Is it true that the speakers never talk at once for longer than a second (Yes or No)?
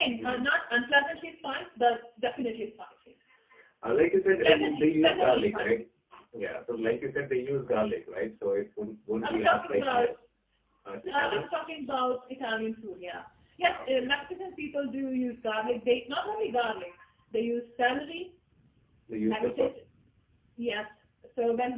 No